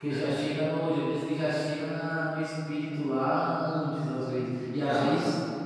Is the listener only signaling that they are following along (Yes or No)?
Yes